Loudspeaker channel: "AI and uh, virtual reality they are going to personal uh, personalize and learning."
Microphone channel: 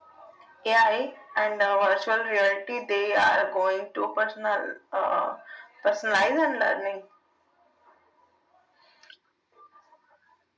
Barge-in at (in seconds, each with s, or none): none